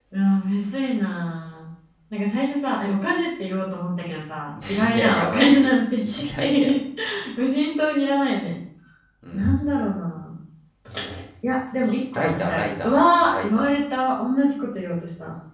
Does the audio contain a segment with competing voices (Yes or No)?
Yes